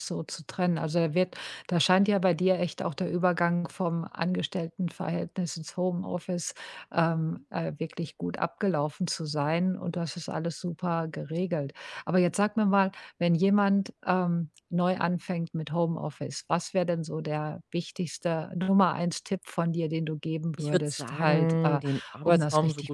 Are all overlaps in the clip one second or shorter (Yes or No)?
No